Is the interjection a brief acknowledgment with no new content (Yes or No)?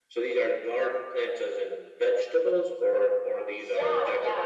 No